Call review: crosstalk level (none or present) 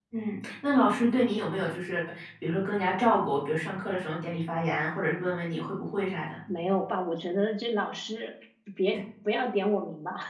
none